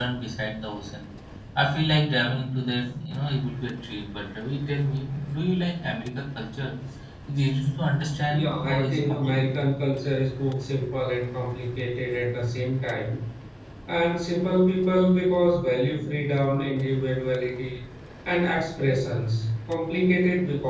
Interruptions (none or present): present